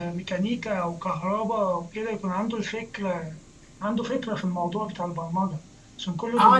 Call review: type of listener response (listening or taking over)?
taking over